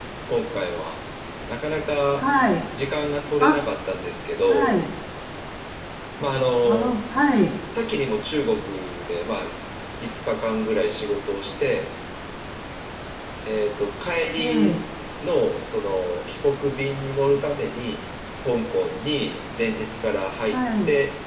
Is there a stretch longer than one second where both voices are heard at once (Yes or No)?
No